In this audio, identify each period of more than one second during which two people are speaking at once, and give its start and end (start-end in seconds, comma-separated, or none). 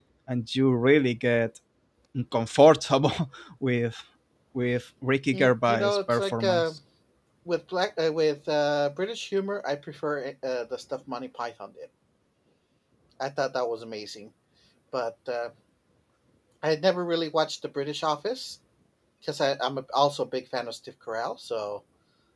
5.3-6.7